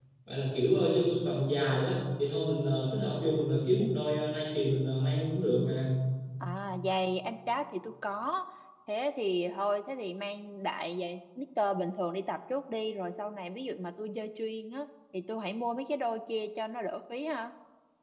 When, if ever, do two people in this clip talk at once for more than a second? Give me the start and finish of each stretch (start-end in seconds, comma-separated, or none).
none